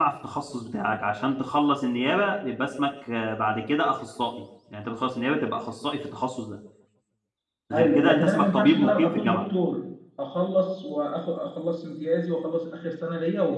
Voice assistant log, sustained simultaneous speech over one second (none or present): present